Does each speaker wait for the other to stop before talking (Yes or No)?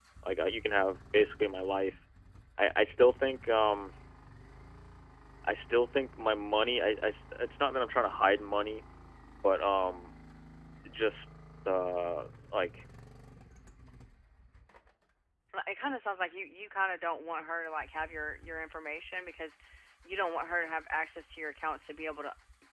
Yes